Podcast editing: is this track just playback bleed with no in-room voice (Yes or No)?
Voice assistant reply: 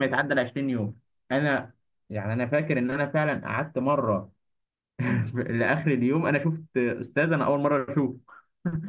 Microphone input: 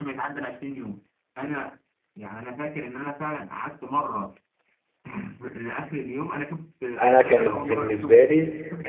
No